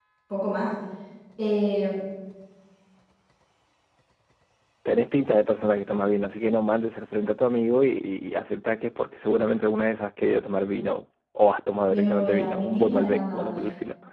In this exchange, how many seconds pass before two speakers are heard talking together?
11.9 s

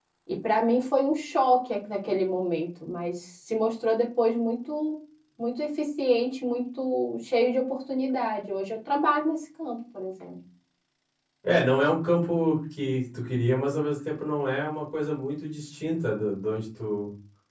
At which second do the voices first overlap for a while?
none

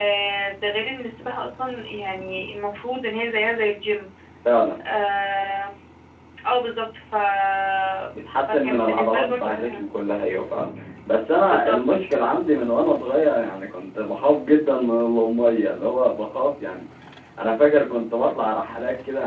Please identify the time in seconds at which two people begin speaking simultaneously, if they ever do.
8.5 s

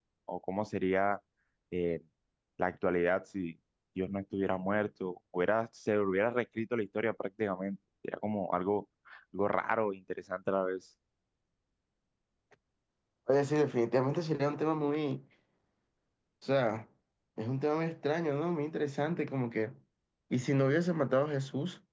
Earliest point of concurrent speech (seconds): none

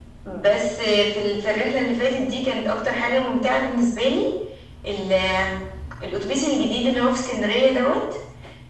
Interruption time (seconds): none

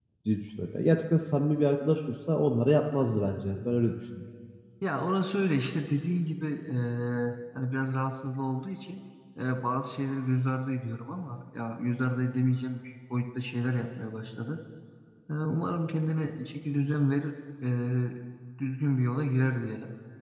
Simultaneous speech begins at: none

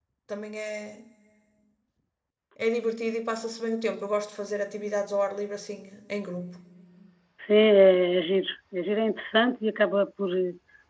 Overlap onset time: none

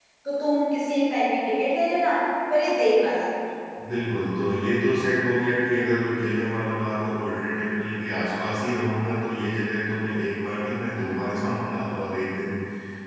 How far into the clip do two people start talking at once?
none

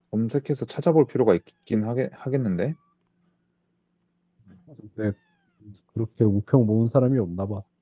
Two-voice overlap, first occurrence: none

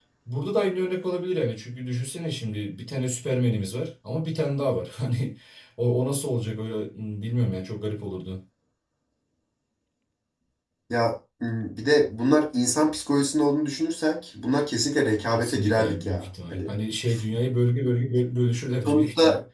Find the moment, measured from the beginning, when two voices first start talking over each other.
15.3 s

